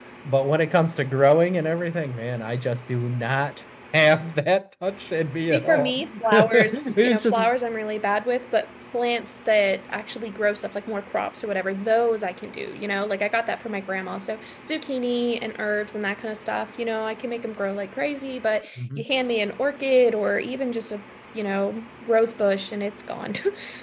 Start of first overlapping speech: 5.4 s

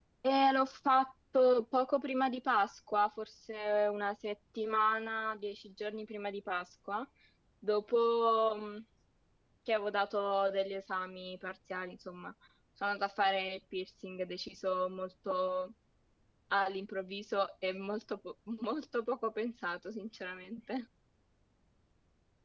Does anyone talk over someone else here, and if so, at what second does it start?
none

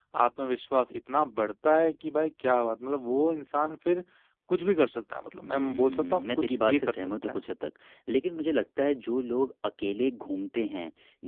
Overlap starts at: 5.4 s

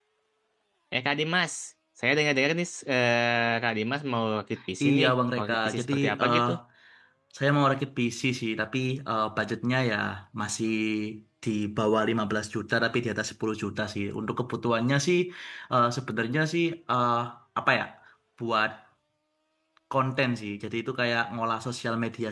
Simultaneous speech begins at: 4.8 s

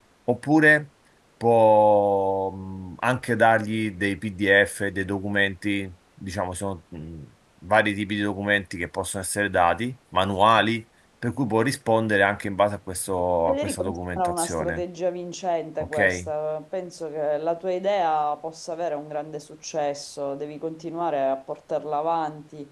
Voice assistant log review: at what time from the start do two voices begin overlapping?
13.5 s

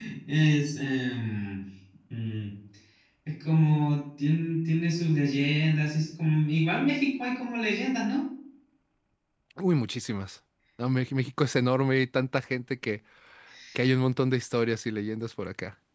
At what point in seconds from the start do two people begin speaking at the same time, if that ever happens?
none

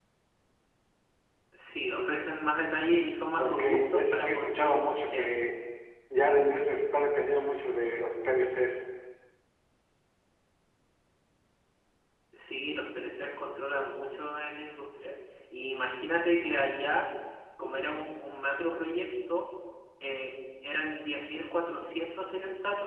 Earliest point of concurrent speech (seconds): 3.4 s

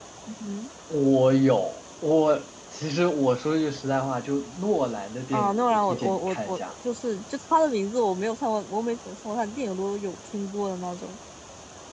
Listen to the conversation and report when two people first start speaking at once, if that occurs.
5.3 s

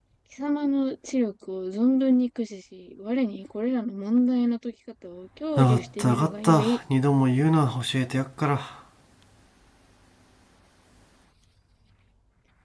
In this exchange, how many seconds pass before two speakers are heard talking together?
5.6 s

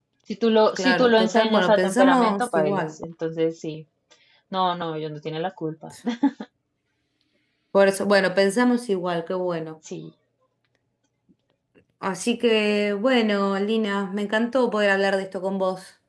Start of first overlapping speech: 0.8 s

